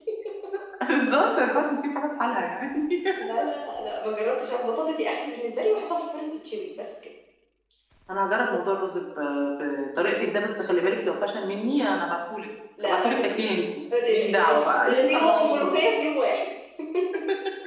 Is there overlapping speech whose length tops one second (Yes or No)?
Yes